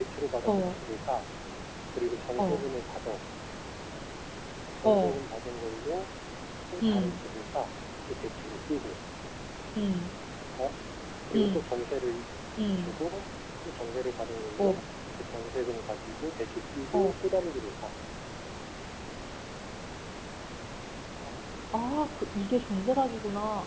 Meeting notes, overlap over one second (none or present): none